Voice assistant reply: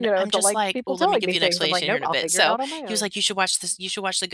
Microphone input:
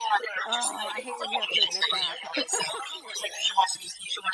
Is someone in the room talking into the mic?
Yes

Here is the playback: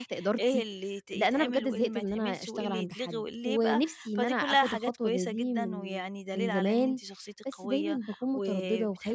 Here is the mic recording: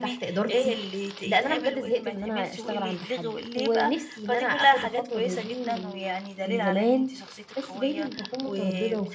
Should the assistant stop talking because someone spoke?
No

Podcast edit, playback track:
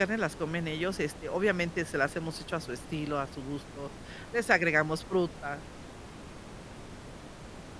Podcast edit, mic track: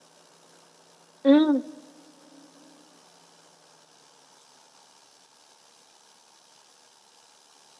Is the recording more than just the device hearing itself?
Yes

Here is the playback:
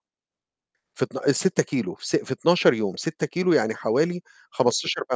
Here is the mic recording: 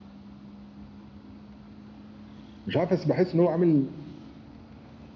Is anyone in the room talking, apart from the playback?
Yes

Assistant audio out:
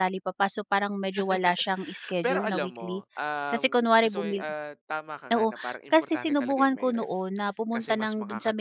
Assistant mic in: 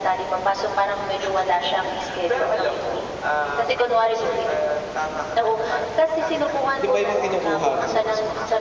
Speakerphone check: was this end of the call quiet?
No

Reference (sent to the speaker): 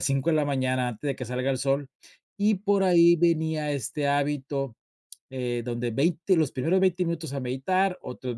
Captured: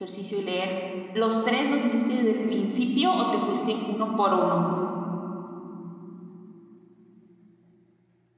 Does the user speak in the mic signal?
Yes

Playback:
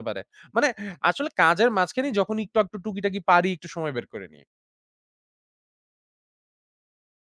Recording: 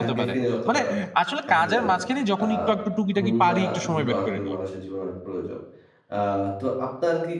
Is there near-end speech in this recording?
Yes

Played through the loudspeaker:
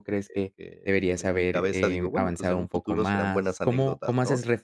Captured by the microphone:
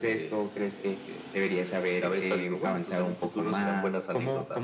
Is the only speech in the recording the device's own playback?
Yes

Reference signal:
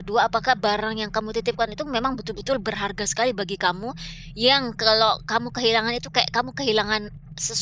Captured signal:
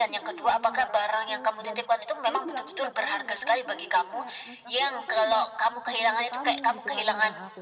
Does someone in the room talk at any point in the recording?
Yes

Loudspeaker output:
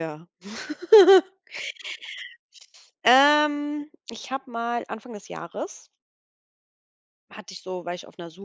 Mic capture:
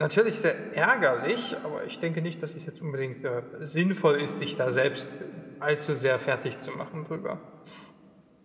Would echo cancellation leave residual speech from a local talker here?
Yes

